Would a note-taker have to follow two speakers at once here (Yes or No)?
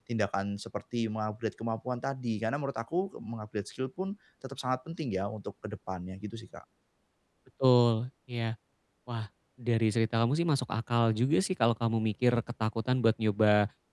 No